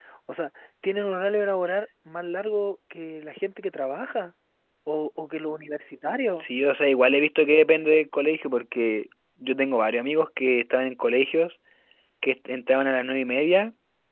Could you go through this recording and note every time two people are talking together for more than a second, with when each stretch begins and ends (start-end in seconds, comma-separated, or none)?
none